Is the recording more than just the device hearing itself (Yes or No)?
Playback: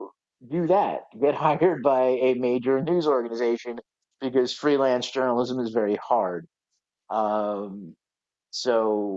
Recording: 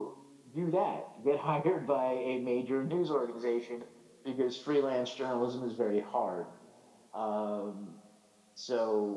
No